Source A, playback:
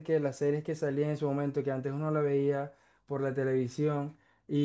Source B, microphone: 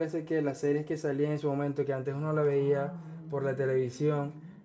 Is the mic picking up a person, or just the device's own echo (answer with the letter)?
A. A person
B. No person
A